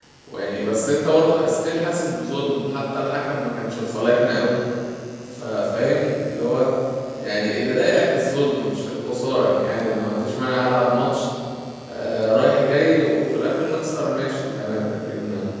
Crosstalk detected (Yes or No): No